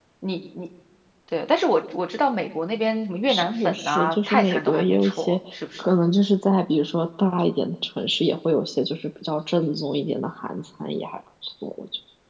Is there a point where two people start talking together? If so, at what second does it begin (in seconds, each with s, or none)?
3.3 s